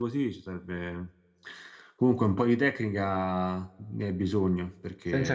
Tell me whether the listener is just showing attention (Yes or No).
No